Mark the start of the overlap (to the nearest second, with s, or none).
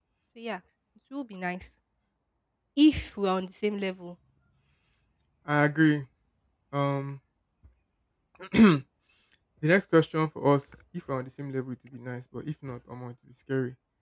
none